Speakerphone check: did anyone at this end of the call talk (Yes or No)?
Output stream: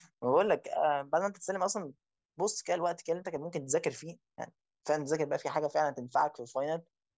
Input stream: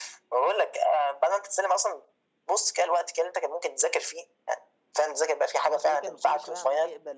Yes